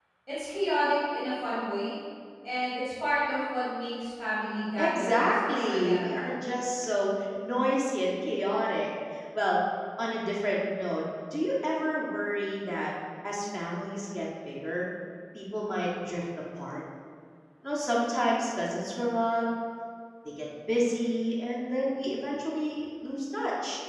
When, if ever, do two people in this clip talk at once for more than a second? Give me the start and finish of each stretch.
4.8-6.4

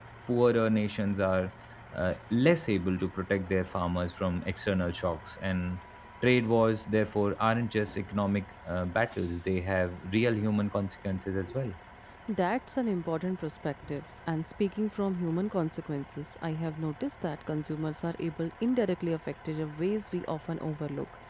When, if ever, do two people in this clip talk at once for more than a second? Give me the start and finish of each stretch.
none

